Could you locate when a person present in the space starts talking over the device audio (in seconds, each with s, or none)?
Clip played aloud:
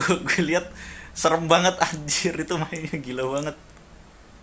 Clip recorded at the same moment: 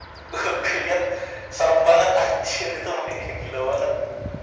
none